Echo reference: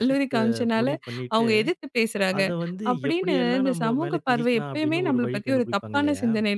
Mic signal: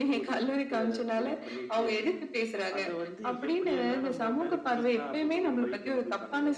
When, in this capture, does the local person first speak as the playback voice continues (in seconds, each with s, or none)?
none